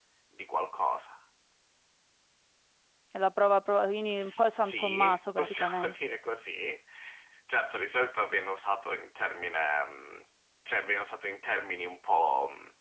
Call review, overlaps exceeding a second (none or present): present